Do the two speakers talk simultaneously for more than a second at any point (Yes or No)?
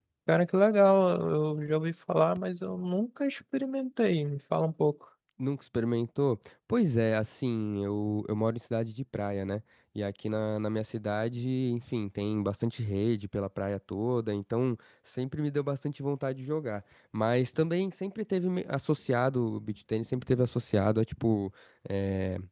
No